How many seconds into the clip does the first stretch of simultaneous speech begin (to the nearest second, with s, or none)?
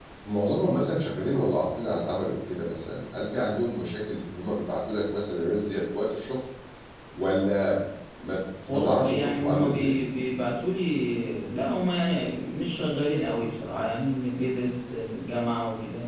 9 s